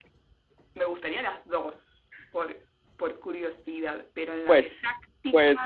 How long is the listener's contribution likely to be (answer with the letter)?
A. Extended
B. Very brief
A